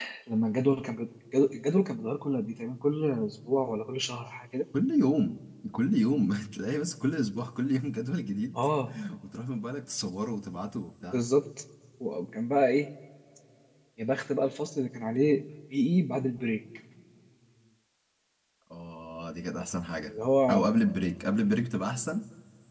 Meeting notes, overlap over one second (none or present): none